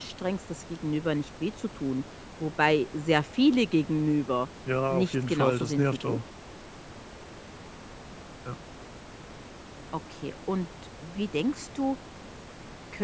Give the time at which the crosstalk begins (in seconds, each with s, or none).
4.9 s